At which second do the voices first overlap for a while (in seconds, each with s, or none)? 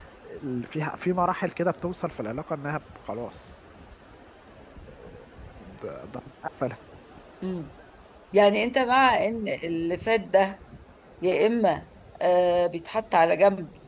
none